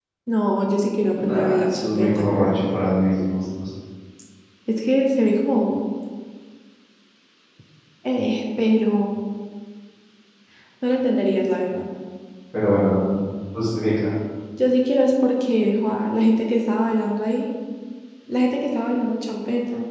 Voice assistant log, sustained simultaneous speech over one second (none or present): present